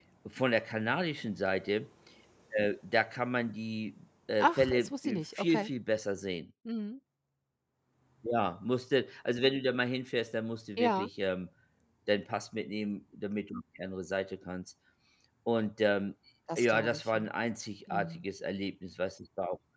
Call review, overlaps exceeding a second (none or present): present